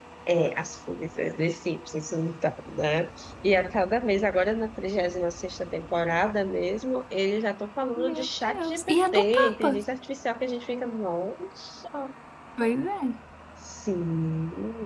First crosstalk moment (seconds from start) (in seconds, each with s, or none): 8.0 s